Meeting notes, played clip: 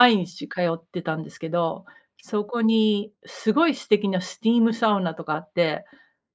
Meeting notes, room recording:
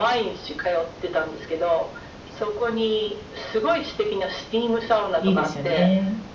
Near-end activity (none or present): present